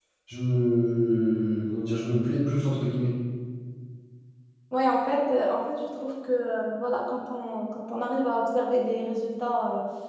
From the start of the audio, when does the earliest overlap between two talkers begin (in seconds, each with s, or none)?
none